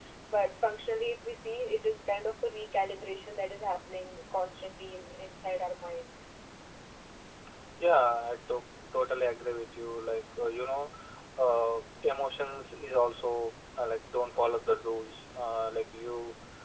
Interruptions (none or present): none